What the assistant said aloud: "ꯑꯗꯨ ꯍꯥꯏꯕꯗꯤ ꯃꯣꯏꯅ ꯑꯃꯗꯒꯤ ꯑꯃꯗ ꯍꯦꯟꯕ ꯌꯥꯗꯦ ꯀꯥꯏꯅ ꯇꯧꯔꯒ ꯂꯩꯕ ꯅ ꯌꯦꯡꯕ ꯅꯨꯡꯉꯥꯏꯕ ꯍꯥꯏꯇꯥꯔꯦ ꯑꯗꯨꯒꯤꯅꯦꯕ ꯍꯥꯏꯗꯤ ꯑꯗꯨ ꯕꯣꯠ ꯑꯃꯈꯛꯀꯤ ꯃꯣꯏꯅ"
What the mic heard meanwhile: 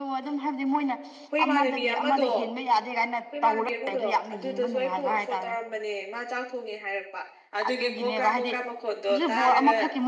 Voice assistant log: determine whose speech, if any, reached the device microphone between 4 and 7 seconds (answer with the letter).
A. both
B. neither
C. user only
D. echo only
A